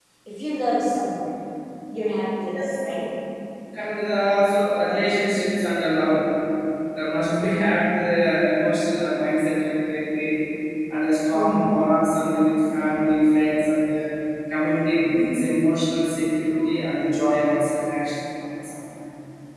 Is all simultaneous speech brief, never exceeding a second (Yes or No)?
Yes